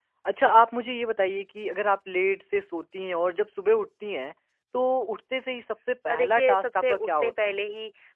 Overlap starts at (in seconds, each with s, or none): 6.1 s